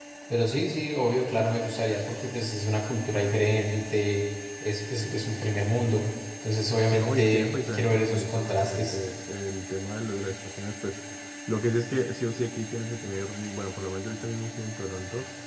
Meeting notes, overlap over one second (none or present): present